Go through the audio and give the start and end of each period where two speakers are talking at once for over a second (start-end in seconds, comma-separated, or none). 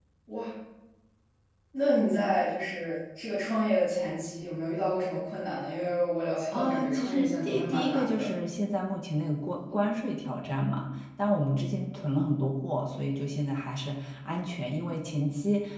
6.5-8.3